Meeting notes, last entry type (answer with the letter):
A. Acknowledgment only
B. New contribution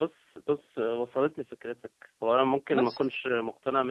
A